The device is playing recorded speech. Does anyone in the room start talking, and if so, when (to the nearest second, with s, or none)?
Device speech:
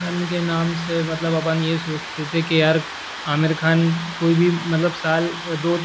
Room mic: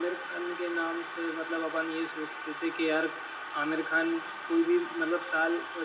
none